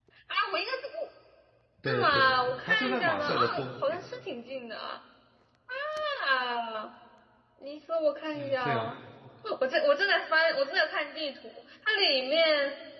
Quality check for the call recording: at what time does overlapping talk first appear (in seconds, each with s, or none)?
1.9 s